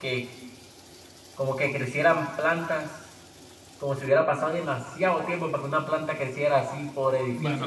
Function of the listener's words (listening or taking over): taking over